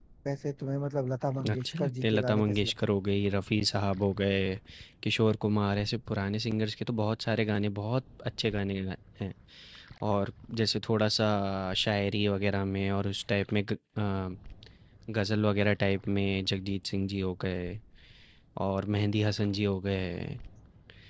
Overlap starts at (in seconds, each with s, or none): 1.4 s